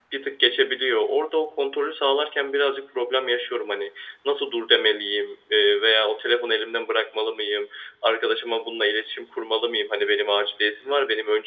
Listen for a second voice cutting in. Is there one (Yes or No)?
No